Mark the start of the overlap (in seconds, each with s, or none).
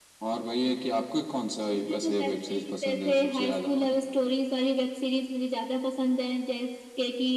1.7 s